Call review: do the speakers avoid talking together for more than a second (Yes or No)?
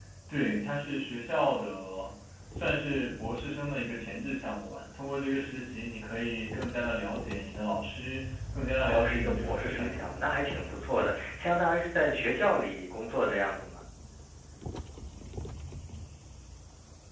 No